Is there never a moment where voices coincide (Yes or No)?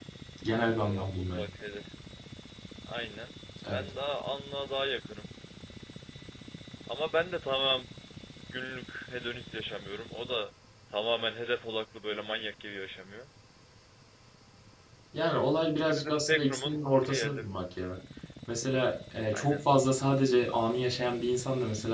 No